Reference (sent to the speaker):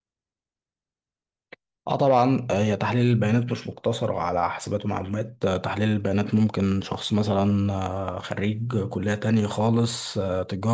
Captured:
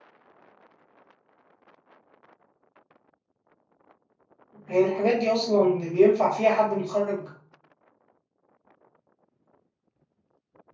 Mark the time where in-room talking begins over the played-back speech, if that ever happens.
4.7 s

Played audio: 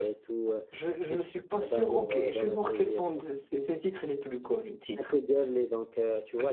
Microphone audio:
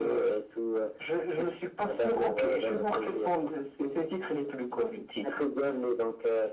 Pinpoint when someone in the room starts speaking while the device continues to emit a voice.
none

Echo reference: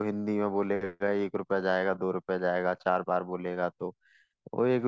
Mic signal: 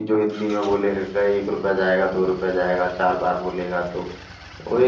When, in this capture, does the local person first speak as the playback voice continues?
none

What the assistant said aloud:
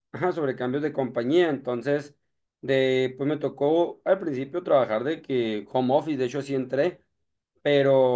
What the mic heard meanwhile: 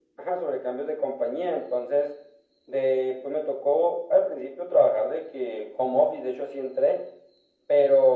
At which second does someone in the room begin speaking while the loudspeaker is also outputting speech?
none

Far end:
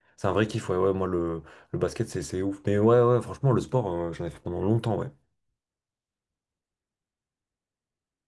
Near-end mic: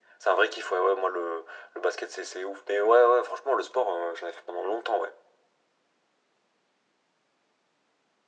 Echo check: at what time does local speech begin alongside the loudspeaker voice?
none

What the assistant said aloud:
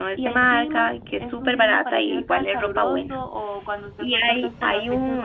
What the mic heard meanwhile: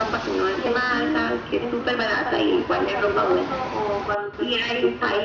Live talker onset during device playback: none

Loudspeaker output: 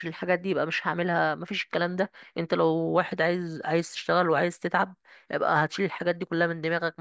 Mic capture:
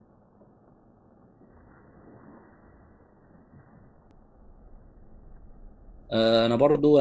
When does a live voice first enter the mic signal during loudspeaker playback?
6.1 s

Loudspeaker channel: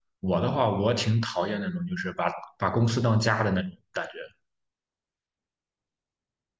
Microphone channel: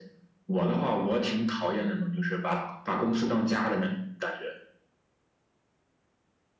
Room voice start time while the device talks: none

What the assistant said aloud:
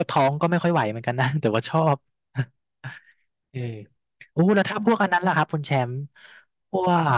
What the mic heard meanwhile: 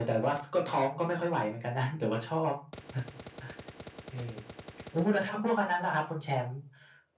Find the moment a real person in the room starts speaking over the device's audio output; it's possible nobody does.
none

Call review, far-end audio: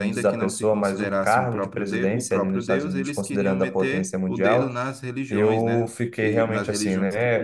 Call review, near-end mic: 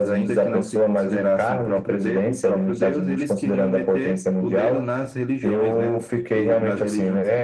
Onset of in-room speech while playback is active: none

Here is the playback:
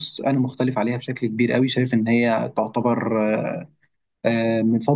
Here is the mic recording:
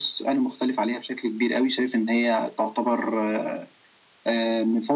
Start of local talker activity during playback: none

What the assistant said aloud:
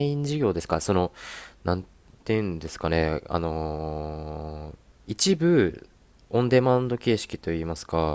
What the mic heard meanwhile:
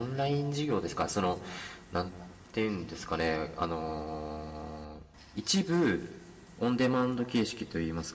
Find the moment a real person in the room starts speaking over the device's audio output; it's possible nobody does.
none

